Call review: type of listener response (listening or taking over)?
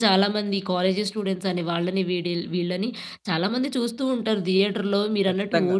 taking over